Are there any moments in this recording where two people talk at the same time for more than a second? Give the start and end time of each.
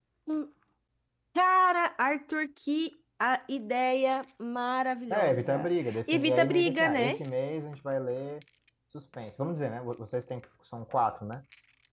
5.1-7.2

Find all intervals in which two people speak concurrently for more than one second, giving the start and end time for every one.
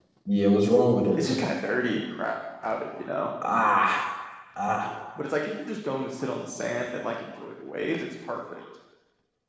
none

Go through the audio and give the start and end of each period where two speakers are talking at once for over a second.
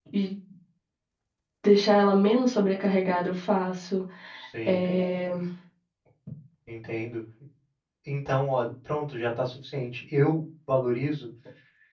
none

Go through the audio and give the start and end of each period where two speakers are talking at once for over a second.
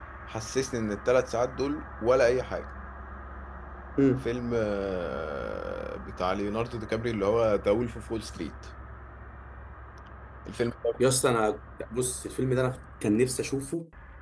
none

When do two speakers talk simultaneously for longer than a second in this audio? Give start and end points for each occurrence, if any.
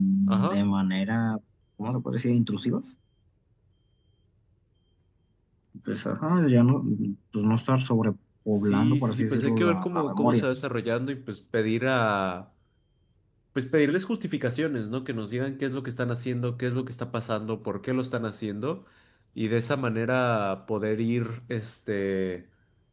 8.6-10.4

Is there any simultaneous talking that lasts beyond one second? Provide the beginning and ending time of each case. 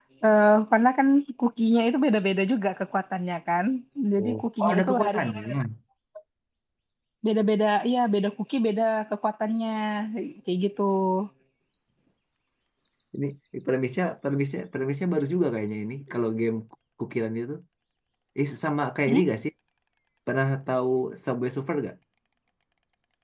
4.2-5.6

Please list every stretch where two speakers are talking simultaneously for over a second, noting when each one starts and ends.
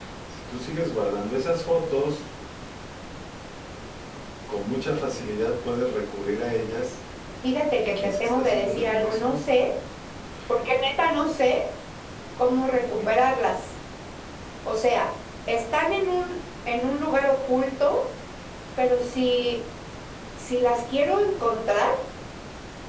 7.8-9.4

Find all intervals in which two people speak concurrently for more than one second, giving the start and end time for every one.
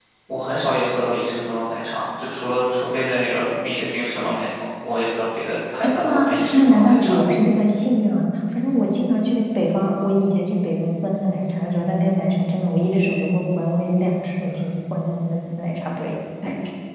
6.0-7.3

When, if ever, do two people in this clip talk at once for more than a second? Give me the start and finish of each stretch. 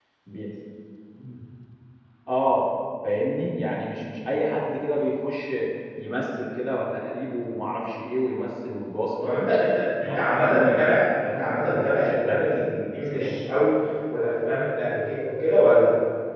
10.0-13.3

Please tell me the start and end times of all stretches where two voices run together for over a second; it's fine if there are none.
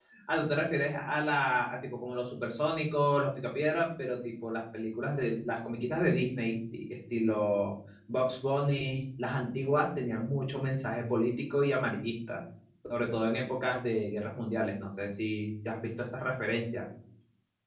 none

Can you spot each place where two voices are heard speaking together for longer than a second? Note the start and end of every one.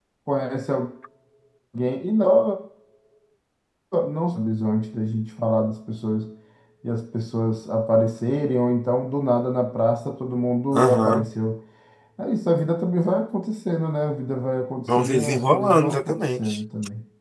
15.0-16.6

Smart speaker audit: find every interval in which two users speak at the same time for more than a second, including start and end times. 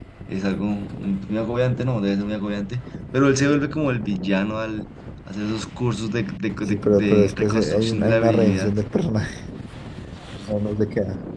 6.7-8.7

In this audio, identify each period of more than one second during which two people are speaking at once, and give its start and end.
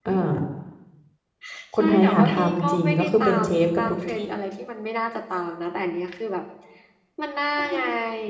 1.8-4.3

